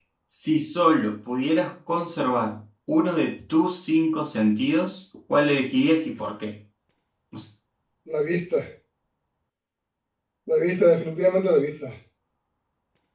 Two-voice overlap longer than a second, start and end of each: none

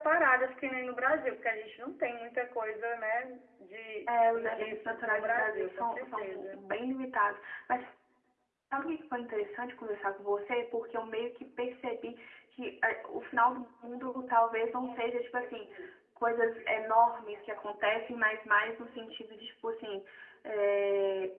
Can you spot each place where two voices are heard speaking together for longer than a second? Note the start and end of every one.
4.1-6.6

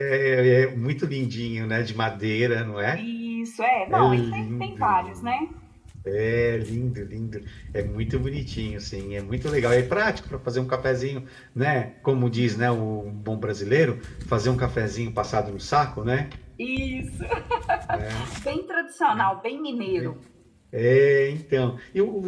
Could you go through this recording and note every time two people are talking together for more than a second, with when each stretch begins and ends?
3.9-5.4

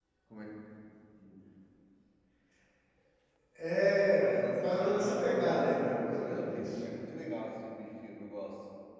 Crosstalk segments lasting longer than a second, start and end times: 4.2-6.8

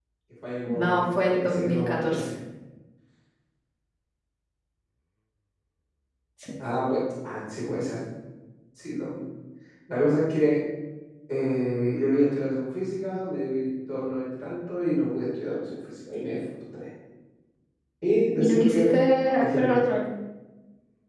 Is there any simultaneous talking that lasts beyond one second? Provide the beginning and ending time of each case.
0.7-2.3

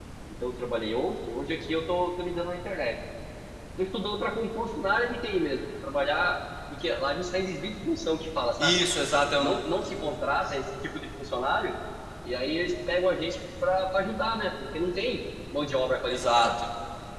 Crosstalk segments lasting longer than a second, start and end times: none

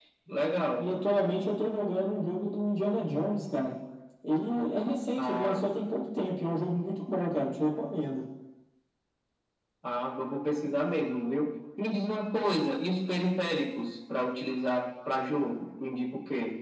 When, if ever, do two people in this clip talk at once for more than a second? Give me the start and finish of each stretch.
none

